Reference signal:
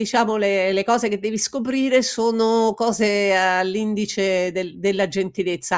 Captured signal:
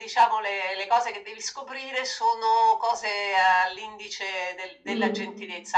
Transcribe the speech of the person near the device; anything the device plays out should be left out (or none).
Mh.